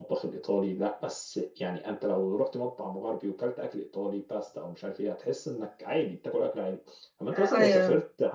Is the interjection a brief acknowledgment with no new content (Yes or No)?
Yes